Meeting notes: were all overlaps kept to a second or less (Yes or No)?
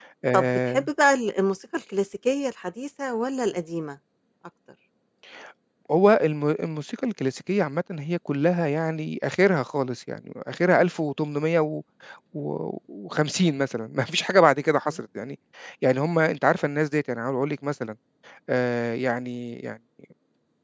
Yes